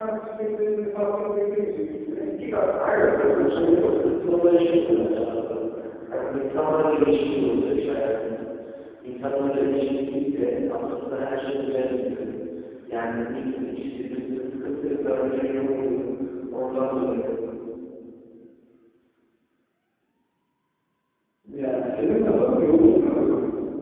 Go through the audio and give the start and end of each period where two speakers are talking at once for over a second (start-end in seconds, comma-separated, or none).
2.9-5.2